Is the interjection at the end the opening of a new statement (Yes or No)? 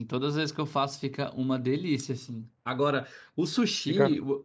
No